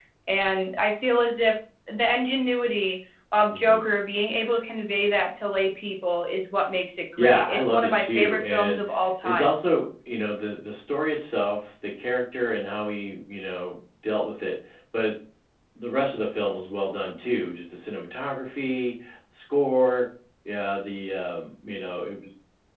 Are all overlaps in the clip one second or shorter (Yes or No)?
No